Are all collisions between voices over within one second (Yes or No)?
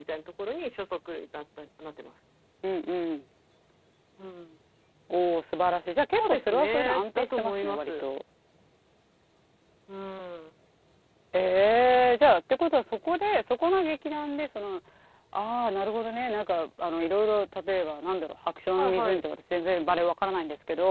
No